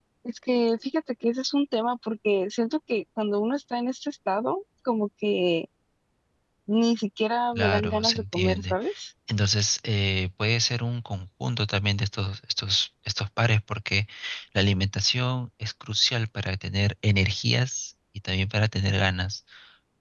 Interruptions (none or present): present